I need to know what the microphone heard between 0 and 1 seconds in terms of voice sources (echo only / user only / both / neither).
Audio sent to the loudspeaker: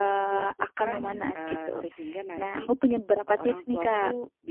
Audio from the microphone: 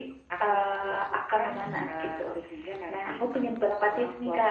echo only